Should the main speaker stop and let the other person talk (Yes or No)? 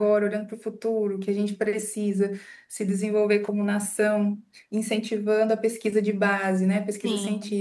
No